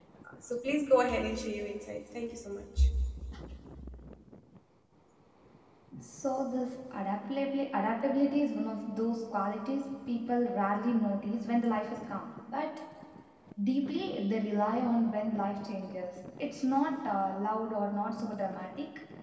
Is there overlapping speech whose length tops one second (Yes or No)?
No